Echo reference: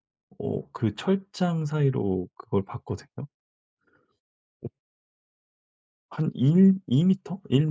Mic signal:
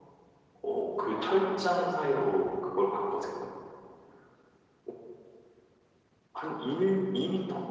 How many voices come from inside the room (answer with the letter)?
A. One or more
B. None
B